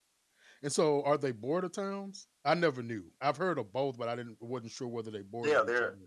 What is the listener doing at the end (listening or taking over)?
taking over